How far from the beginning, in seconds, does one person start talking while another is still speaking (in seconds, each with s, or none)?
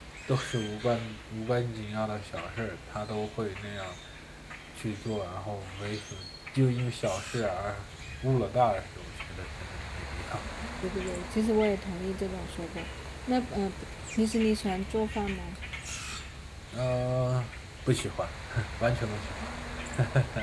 none